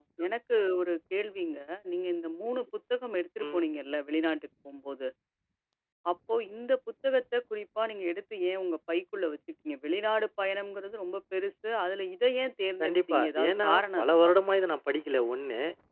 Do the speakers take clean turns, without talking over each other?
No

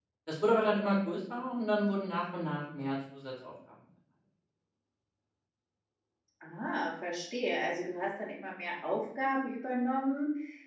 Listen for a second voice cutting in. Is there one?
No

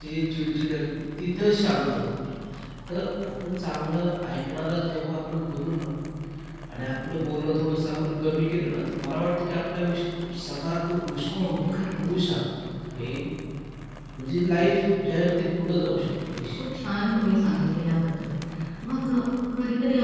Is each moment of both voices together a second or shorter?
Yes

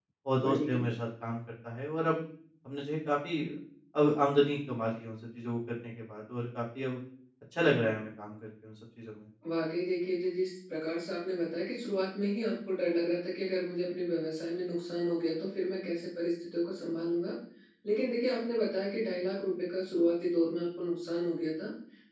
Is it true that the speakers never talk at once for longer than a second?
Yes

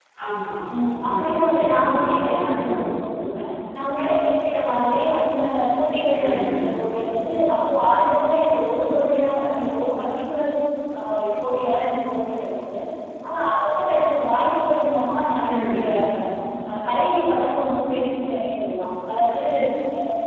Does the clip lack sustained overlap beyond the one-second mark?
No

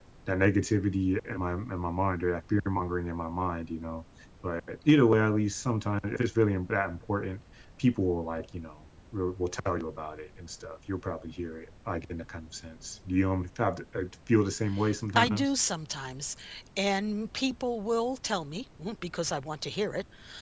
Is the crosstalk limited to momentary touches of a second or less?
Yes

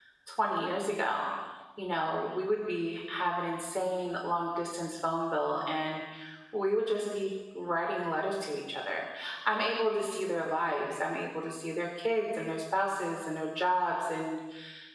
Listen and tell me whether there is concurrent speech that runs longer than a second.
No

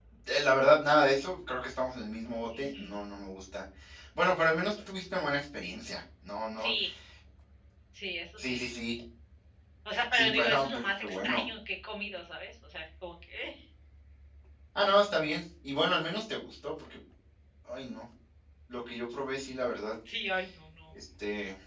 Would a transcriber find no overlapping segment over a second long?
No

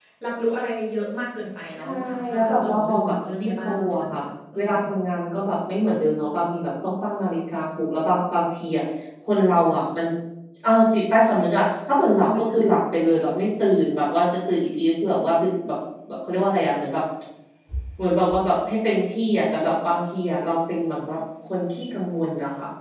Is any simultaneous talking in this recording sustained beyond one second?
Yes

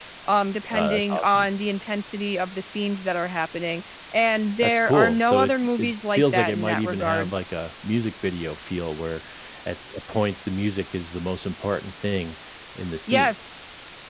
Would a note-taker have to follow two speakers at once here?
Yes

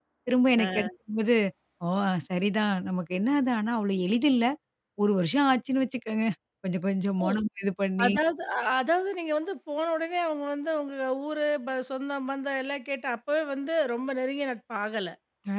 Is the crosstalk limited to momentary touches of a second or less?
Yes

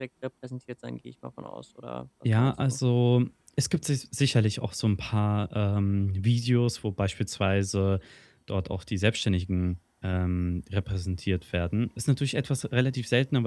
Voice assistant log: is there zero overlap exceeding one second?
Yes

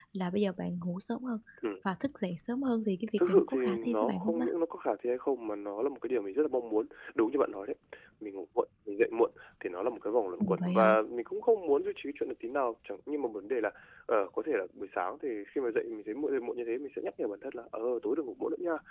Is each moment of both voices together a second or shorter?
No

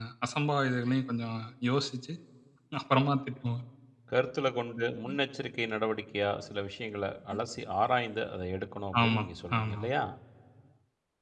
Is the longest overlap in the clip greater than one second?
No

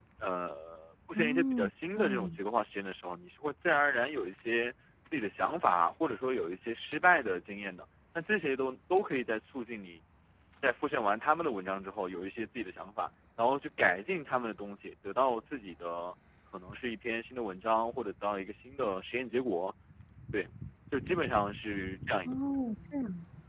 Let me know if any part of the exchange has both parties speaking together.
Yes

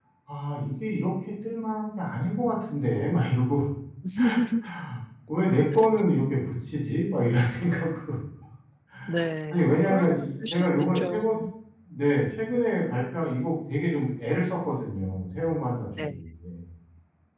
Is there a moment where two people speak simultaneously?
Yes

